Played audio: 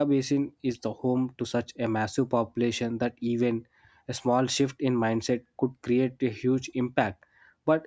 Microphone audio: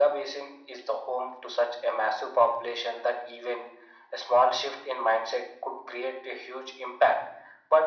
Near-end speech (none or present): none